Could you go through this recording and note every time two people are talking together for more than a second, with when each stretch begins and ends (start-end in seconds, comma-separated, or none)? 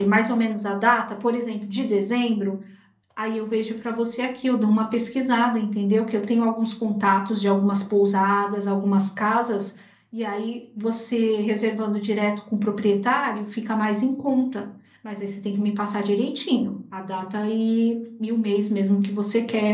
none